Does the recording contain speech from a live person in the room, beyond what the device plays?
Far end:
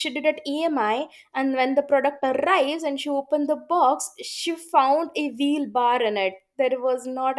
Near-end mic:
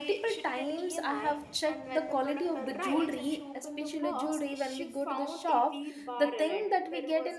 Yes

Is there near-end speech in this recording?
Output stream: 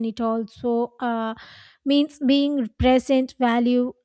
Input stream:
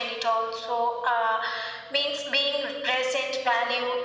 No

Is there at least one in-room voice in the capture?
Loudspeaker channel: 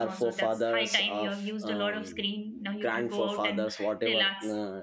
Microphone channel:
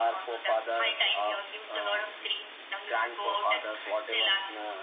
No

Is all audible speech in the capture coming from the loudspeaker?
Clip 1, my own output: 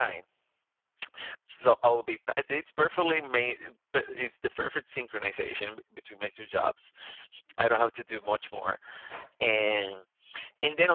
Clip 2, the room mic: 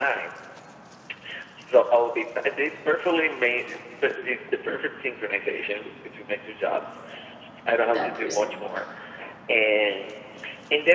No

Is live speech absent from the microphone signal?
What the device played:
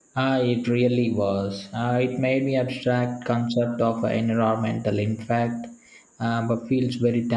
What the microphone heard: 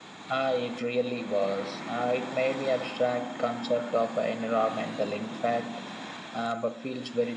Yes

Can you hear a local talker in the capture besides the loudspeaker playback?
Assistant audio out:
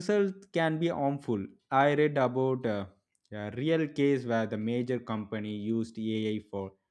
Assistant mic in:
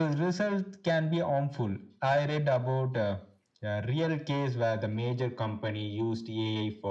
No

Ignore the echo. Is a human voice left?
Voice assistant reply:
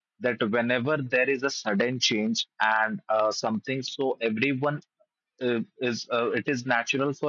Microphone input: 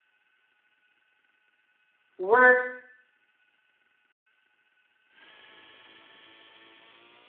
Yes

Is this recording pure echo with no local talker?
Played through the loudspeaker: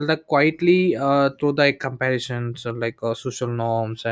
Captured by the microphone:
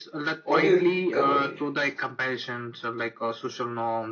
No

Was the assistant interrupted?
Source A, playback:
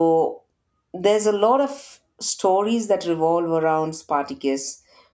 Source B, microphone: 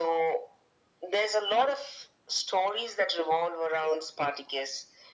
No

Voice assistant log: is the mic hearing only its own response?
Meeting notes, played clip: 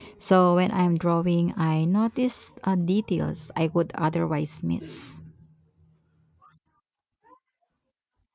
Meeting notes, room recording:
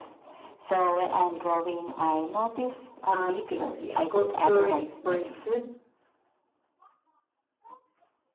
No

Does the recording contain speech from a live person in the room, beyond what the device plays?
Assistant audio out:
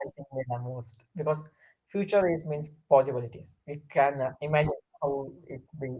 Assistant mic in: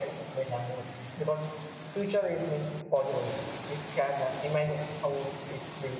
No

